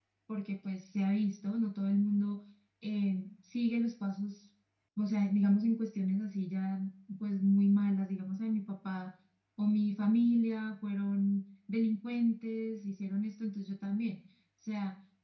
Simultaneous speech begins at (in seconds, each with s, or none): none